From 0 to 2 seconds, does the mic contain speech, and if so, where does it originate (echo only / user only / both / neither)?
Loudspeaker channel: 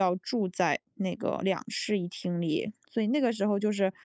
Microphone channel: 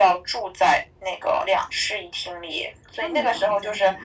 echo only